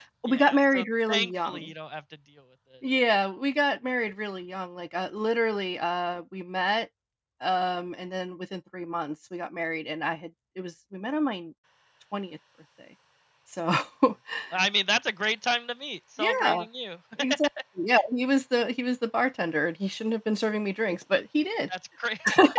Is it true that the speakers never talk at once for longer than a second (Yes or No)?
No